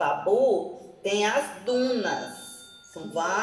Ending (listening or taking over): listening